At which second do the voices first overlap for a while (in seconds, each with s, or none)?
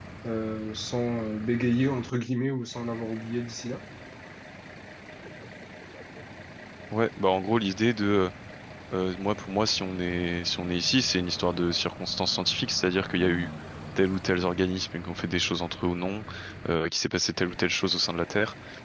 none